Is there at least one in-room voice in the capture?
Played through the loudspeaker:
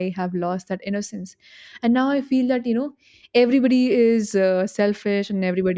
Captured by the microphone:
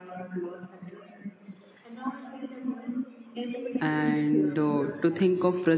Yes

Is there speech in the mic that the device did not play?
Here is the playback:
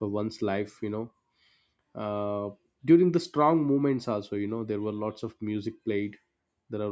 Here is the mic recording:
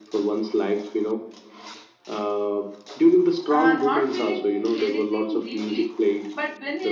Yes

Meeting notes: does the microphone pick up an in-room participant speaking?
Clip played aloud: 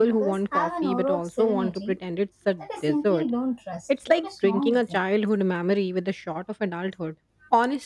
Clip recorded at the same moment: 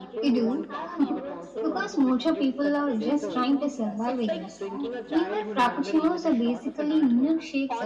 Yes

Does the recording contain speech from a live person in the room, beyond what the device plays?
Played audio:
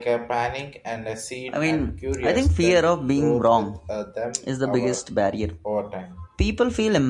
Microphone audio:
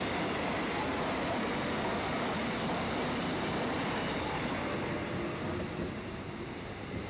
No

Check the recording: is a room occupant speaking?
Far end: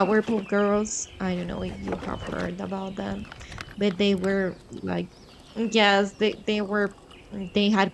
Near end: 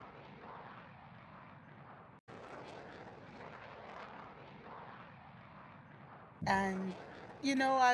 Yes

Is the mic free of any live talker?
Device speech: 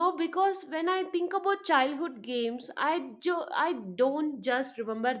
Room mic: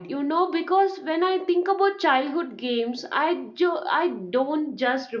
Yes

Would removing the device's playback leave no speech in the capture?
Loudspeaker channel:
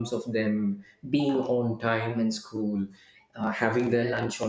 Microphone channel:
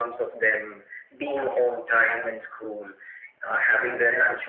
Yes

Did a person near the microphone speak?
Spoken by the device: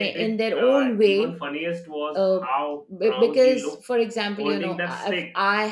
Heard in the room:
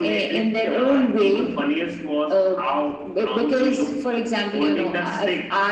No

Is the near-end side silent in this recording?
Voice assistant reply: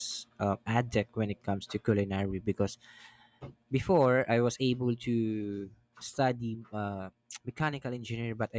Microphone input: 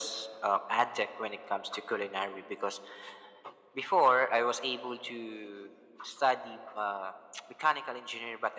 Yes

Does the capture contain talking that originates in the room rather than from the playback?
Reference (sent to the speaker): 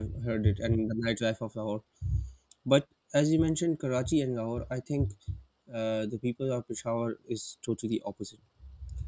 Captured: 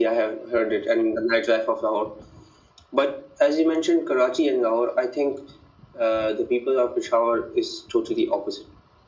No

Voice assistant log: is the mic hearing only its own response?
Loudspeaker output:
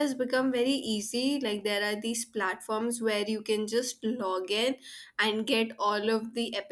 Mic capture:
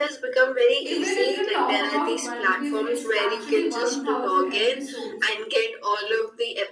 No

